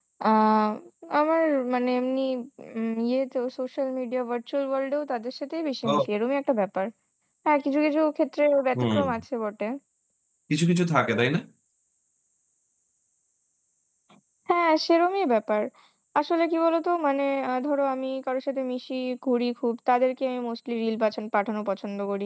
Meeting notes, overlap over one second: none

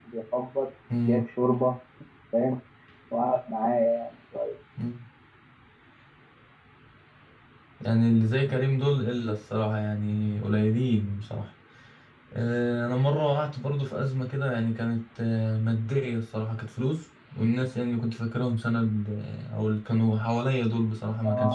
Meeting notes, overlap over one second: none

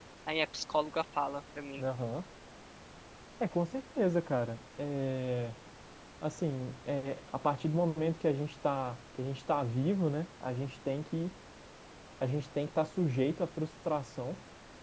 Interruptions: none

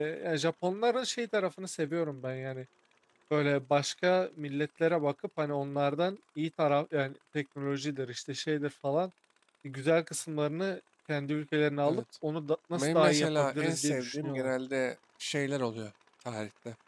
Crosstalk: present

